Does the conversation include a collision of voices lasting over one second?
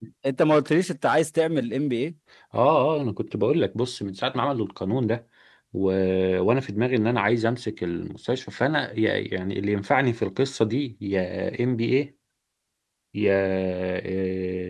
No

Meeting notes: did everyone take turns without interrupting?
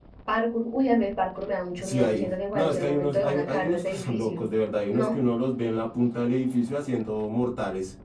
No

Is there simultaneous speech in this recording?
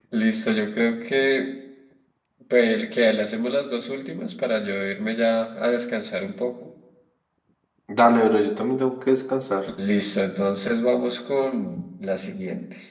No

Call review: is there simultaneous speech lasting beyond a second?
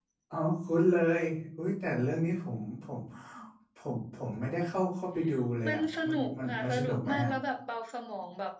Yes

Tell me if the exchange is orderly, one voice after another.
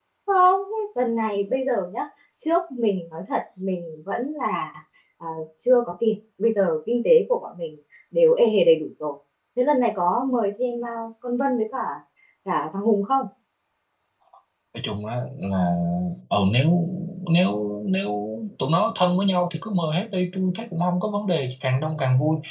Yes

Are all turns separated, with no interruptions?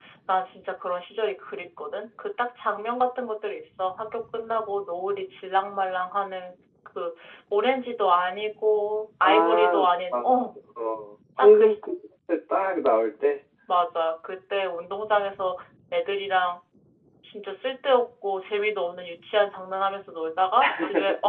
No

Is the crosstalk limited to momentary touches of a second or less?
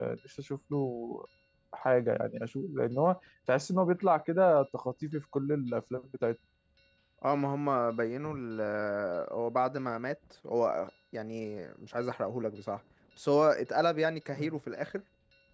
Yes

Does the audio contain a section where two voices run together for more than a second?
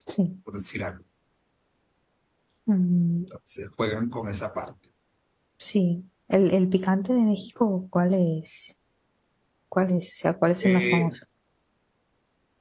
No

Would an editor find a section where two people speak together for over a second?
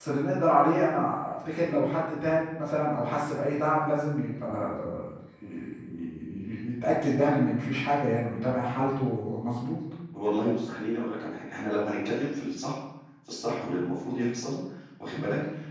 No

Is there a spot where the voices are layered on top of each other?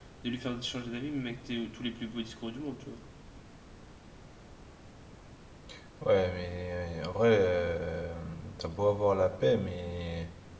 No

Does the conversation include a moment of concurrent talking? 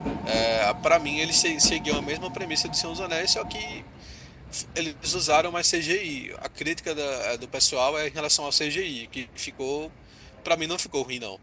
No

